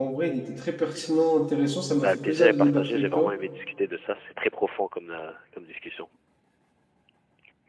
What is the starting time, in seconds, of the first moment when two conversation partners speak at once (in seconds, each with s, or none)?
2.0 s